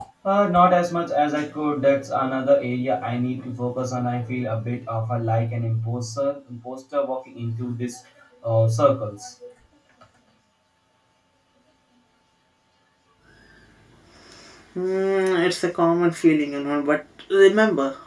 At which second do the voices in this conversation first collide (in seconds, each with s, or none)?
none